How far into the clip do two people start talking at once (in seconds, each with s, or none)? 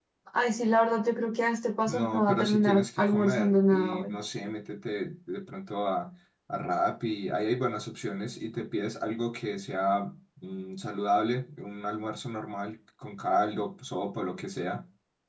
1.9 s